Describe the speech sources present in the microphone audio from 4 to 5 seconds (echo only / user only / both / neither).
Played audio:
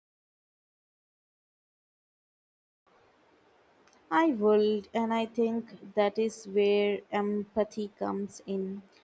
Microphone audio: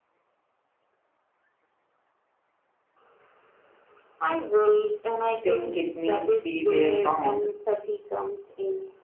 echo only